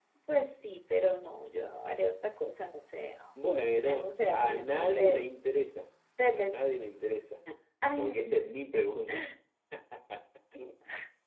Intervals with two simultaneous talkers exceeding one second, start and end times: 3.8-5.2

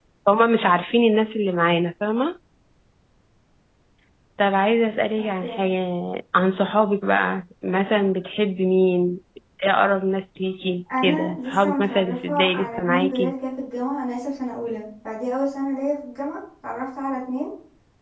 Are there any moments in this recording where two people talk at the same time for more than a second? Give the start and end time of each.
11.0-13.3

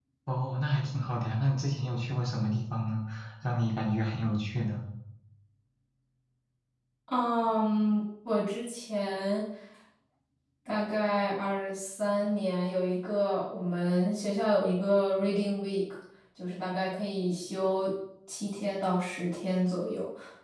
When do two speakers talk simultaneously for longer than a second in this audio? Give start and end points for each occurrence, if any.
none

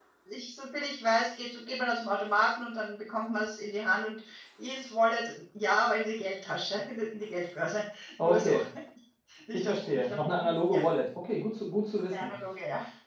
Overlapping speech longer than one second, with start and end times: 9.5-10.8

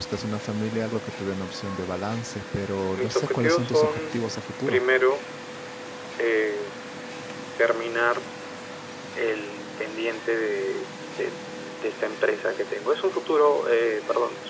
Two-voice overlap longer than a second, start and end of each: 3.0-4.2

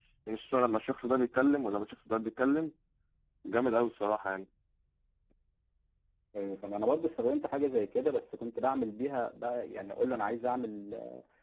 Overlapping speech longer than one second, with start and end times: none

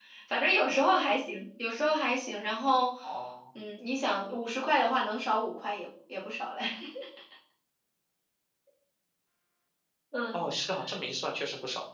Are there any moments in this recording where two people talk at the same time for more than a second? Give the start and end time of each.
none

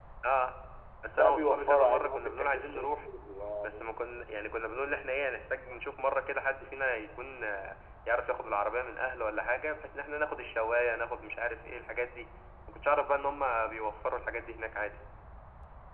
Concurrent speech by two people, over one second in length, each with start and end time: 1.1-2.9

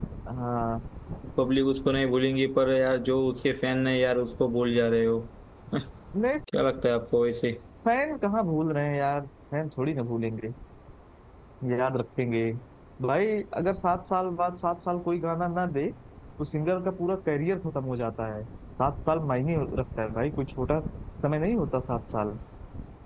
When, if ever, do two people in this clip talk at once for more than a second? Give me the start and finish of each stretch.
none

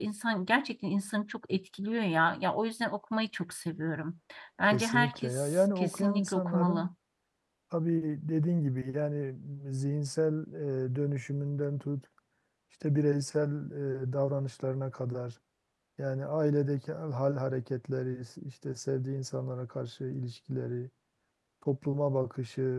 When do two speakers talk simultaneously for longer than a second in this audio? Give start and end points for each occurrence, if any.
4.7-6.9

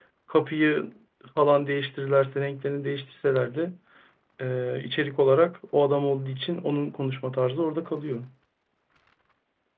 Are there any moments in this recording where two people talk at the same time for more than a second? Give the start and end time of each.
none

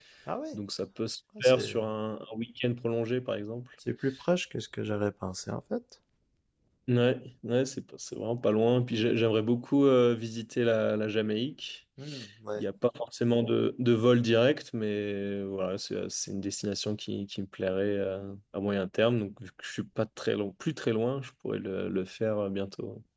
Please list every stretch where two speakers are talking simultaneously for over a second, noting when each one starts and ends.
none

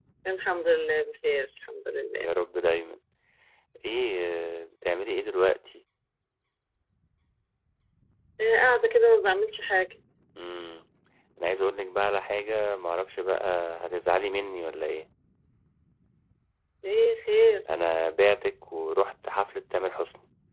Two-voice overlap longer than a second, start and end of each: none

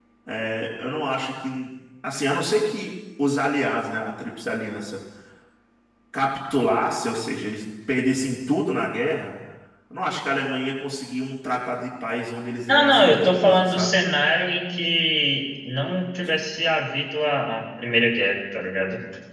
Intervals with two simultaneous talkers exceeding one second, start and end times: 12.7-13.9

